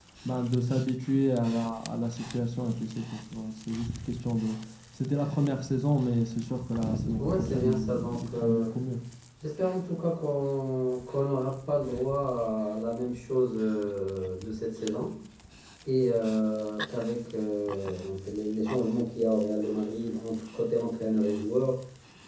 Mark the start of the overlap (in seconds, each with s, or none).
7.2 s